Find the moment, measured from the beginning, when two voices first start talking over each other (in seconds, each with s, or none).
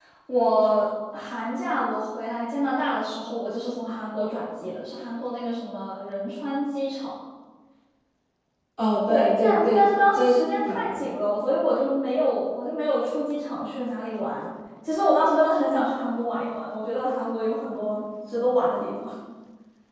9.1 s